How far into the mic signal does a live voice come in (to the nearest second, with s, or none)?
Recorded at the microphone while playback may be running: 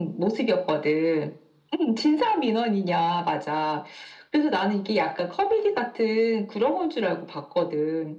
none